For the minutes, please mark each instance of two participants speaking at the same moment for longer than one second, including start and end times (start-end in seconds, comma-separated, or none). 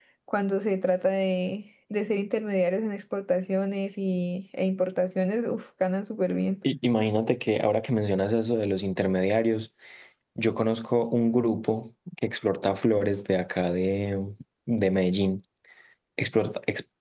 none